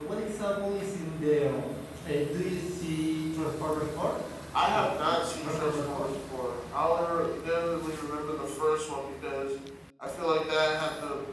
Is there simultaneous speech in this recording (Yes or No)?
Yes